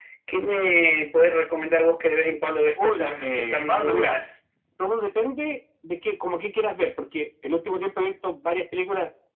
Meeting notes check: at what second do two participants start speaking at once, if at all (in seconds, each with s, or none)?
2.8 s